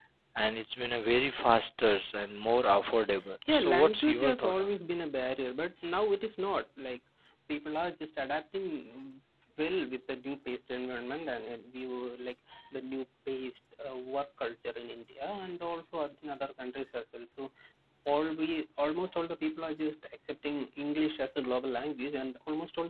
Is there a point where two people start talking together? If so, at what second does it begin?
3 s

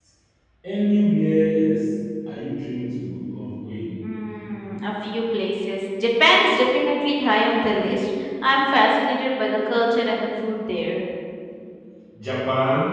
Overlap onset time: none

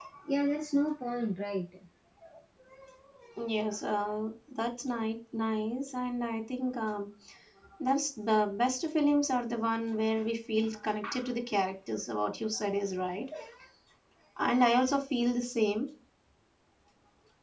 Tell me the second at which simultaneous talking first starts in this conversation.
none

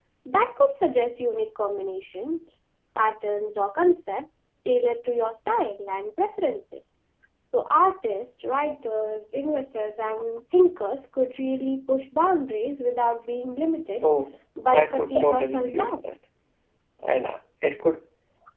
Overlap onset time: 15 s

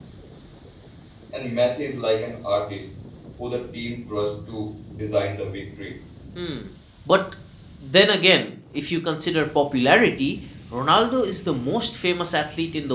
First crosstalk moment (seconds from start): none

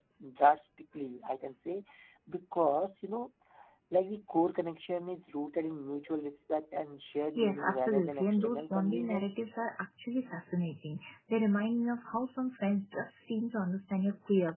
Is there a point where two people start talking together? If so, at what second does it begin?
7 s

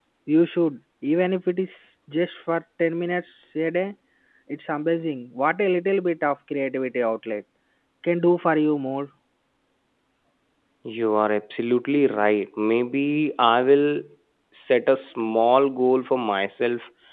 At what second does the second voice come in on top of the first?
none

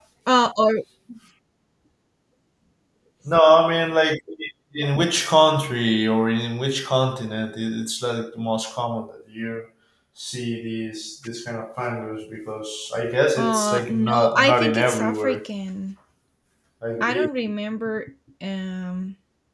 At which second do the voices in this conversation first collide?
13 s

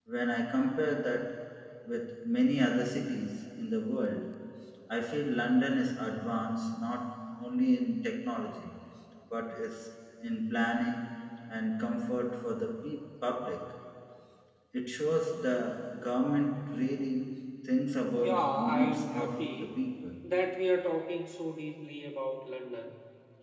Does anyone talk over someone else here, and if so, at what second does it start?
18 s

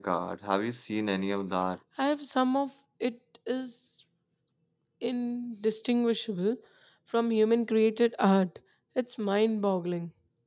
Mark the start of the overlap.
none

